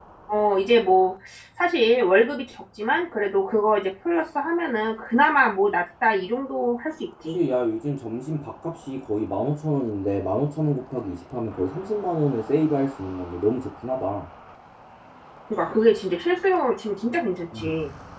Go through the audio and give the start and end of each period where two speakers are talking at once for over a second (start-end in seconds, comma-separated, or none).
none